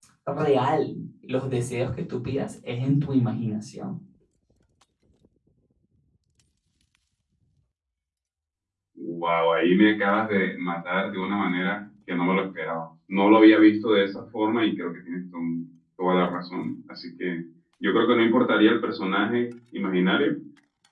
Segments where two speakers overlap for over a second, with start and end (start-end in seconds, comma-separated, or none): none